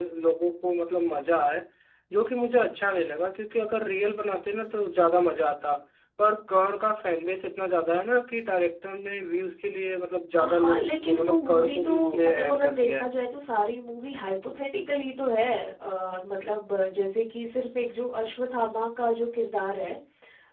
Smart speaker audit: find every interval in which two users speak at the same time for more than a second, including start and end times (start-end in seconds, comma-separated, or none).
10.4-13.1